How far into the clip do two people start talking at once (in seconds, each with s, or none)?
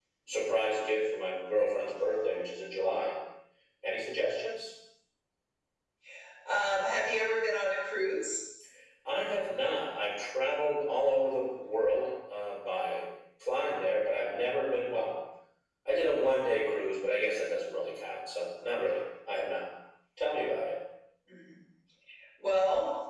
none